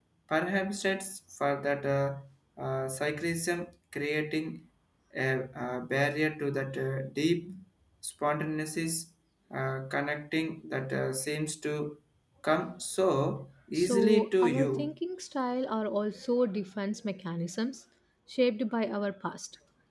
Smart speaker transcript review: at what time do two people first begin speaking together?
14 s

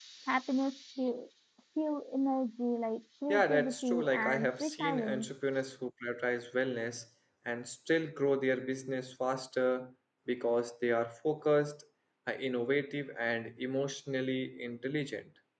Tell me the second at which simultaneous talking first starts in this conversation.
3 s

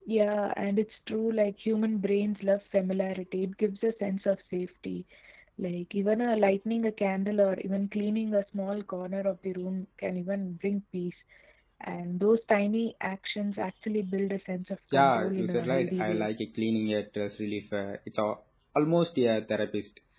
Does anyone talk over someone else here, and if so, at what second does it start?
15 s

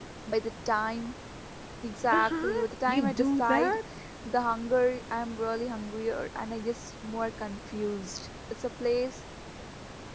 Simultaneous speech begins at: 2 s

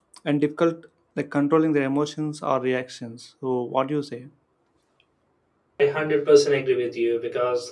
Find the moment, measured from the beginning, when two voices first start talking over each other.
none

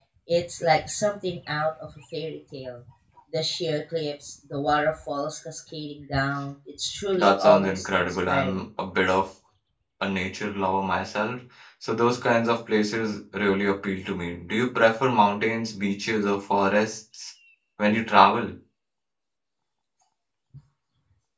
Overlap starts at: 7 s

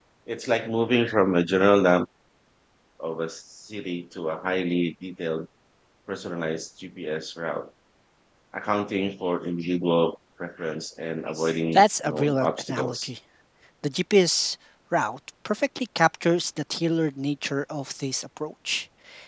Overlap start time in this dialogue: 12 s

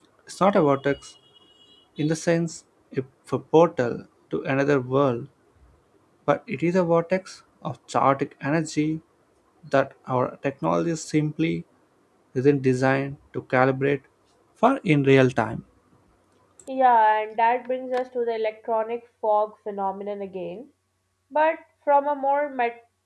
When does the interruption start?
none

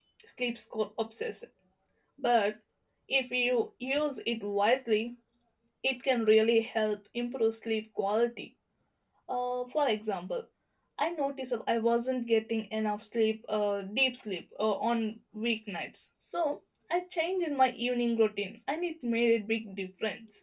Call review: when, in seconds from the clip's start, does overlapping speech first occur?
none

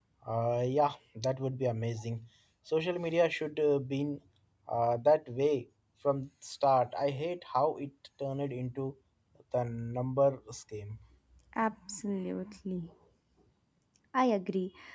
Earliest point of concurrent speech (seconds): none

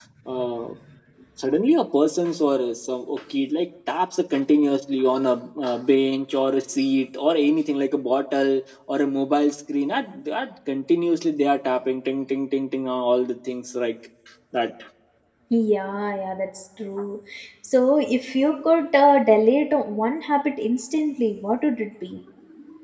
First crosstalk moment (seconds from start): none

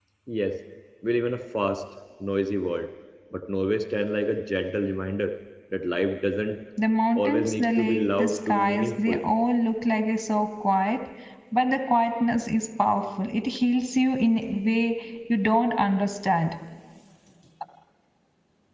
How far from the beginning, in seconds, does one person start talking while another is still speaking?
7 s

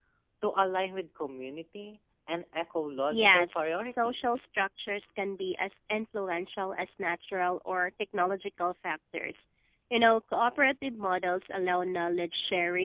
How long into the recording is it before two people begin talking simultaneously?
3 s

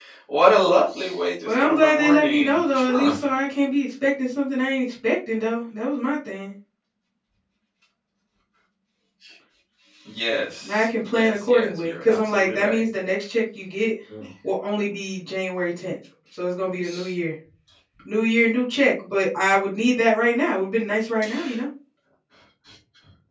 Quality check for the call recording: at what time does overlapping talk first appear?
1 s

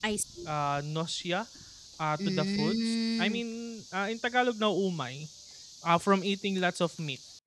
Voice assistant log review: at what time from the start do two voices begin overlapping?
2 s

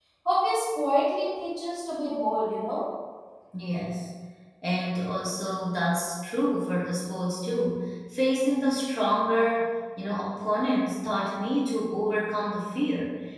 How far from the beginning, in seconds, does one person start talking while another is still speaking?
none

